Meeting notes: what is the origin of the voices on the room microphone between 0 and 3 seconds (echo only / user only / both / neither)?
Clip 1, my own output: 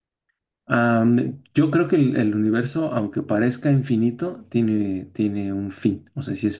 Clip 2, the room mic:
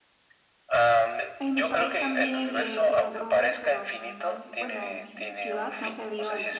both